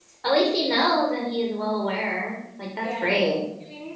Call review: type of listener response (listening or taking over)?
taking over